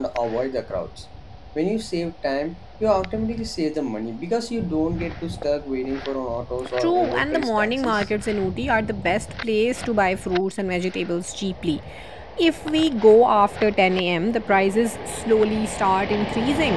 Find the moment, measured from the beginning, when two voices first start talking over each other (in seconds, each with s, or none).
6.8 s